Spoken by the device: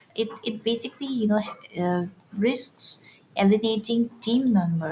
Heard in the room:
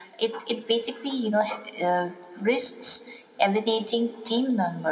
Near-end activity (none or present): none